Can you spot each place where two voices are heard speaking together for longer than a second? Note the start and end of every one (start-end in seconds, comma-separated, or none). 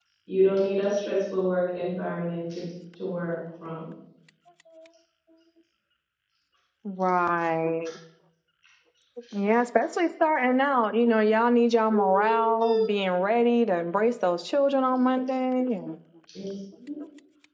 none